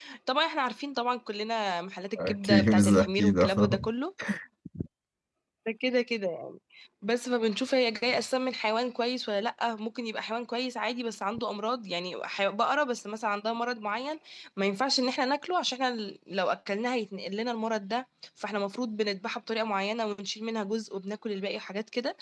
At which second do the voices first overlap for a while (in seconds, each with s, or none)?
2.2 s